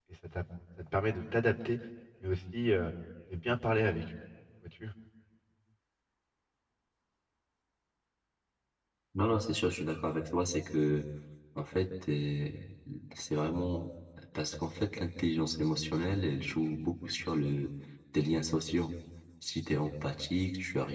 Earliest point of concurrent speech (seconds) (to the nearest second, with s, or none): none